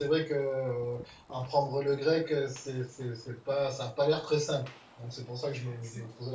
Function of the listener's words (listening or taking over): taking over